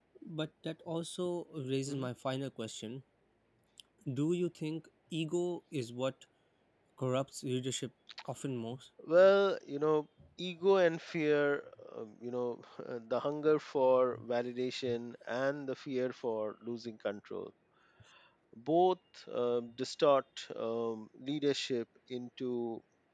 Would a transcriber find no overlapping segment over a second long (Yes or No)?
Yes